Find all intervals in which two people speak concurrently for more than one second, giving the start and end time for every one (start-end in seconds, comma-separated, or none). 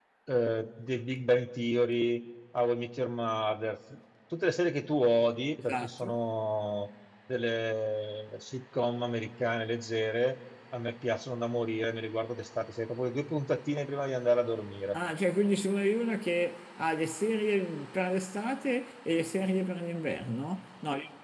none